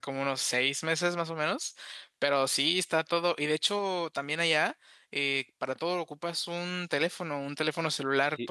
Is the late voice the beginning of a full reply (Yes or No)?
Yes